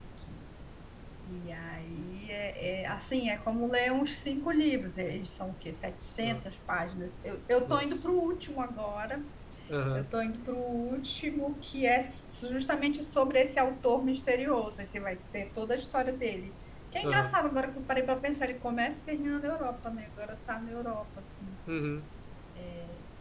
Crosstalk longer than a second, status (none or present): none